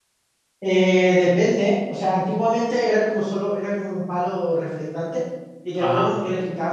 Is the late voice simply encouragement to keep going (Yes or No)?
Yes